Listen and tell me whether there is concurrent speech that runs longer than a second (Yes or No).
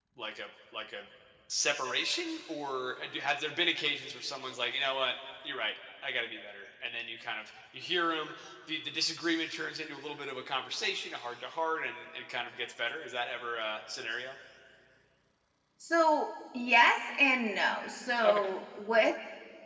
No